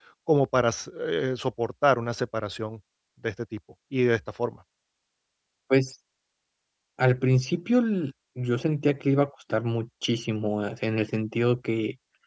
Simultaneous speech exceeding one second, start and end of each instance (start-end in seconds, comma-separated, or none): none